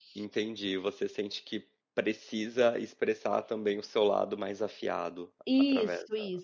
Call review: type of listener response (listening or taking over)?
taking over